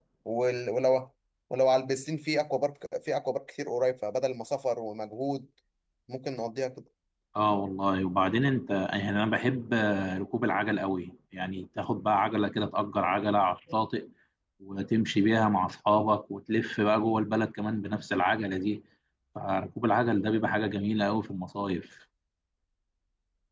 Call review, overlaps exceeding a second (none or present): none